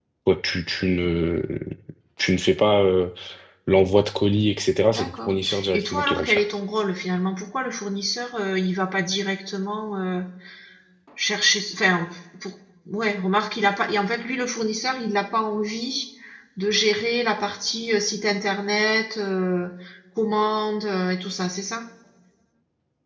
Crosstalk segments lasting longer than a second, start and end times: 4.9-6.4

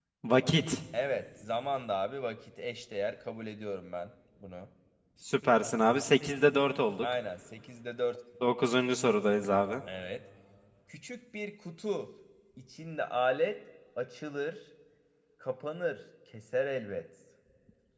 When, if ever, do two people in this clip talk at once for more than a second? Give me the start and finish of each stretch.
none

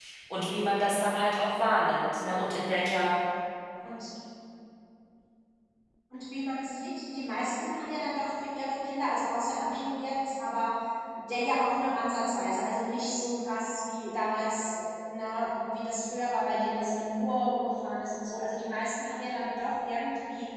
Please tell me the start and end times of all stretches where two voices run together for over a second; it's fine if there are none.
none

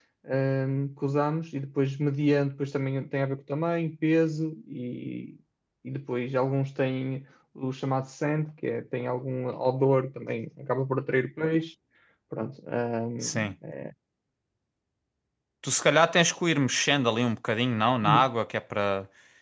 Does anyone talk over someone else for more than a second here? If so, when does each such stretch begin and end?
none

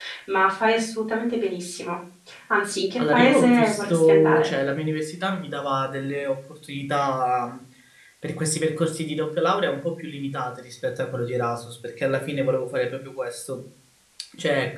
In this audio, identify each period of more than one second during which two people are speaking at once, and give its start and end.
3.0-4.5

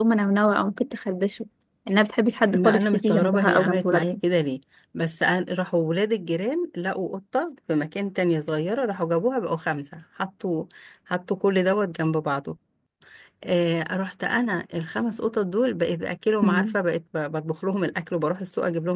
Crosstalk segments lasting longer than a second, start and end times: 2.5-4.0

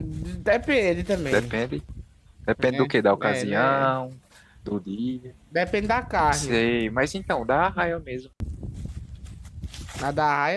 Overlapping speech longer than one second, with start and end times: 2.7-3.9

